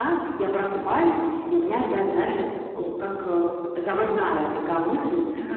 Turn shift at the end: No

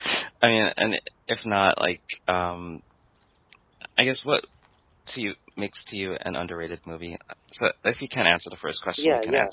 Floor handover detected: Yes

